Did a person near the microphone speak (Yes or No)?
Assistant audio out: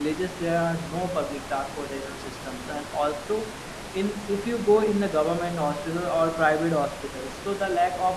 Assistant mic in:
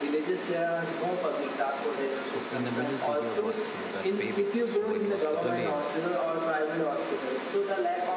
Yes